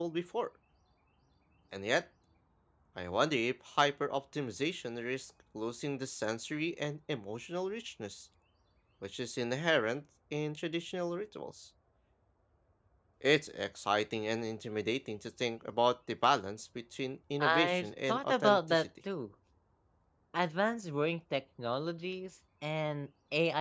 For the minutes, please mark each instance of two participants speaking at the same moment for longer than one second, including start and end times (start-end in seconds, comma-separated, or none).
17.4-18.9